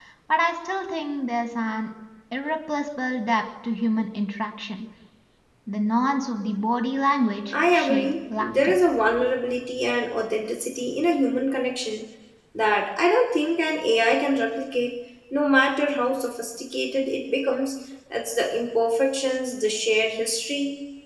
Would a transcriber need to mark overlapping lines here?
Yes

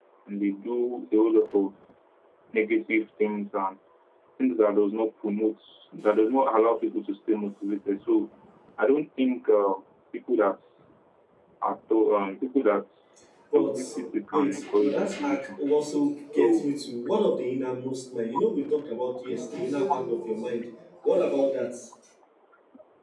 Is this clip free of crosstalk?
No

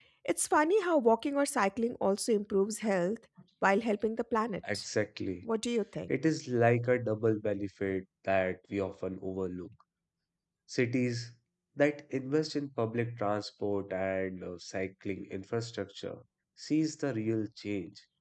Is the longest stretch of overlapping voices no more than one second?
Yes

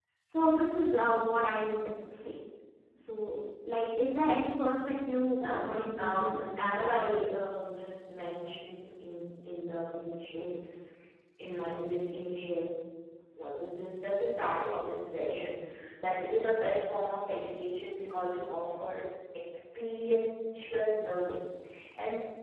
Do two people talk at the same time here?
Yes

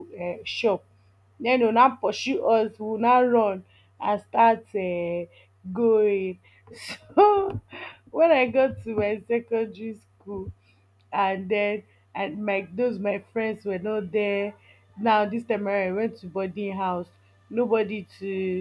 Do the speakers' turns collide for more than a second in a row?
No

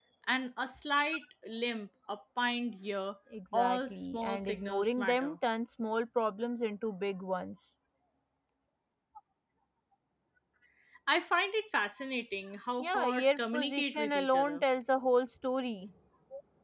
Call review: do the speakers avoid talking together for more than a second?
No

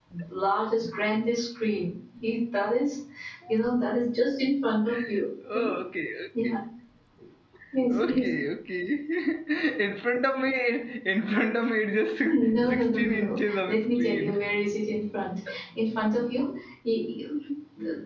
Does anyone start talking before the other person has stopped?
Yes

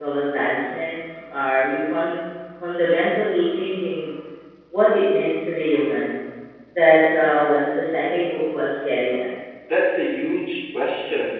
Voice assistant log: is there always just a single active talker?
Yes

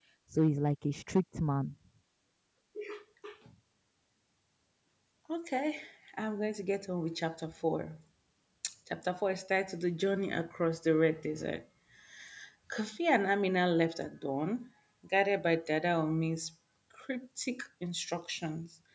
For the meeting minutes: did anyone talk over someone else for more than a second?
No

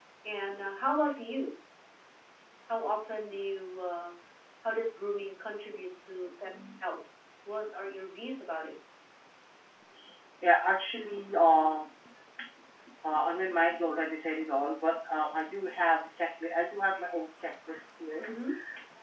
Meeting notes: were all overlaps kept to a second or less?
Yes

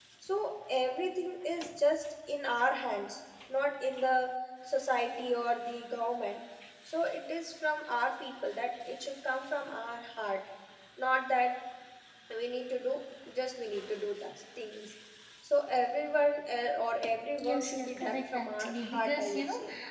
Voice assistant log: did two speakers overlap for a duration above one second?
Yes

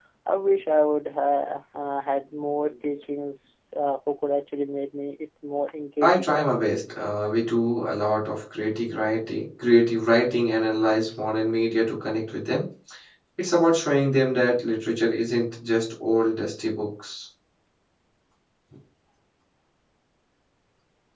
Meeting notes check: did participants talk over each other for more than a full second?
No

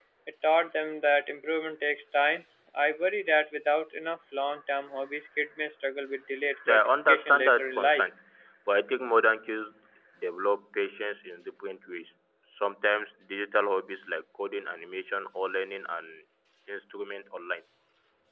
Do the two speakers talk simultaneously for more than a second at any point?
Yes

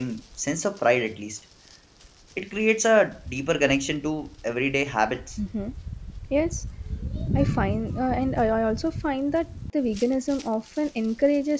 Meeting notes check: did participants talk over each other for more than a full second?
No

